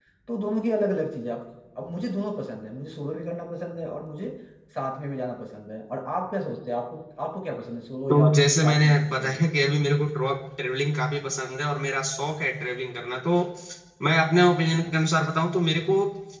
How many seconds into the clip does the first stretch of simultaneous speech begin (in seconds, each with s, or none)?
8.1 s